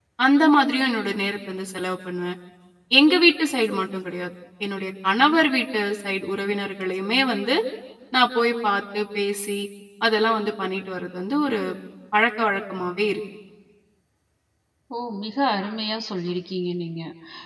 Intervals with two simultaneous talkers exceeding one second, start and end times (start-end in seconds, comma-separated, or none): none